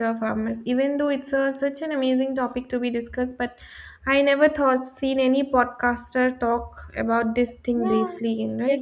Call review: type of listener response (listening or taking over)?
taking over